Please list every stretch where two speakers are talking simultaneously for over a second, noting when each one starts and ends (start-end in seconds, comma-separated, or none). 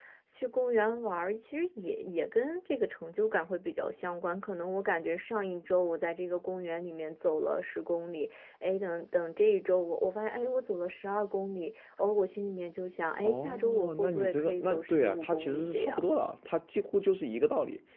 13.2-16.1